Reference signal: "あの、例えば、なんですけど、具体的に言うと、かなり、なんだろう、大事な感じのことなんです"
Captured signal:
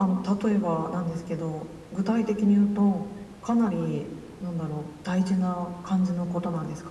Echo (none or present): present